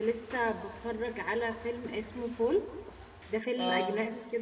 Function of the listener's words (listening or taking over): listening